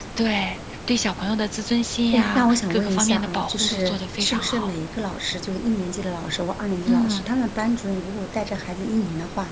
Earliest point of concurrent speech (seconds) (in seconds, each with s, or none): 2.1 s